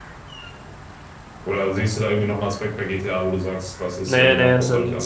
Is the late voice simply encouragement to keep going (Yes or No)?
No